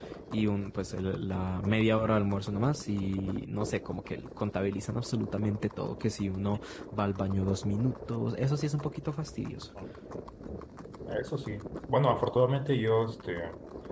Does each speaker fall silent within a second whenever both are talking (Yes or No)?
Yes